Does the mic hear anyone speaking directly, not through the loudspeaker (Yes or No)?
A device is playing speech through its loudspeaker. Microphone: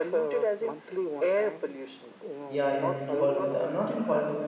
Yes